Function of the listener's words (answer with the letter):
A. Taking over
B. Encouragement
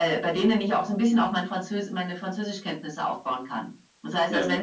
B